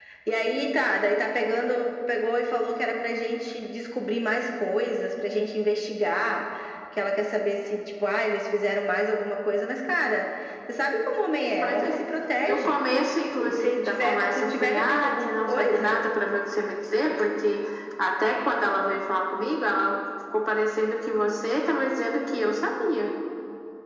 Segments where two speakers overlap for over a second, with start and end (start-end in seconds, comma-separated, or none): 13.4-16.0